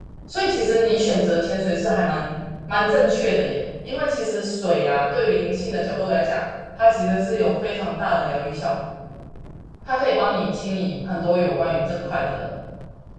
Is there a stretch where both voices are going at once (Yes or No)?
No